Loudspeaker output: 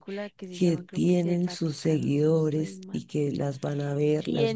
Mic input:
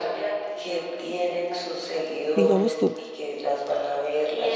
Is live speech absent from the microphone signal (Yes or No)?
No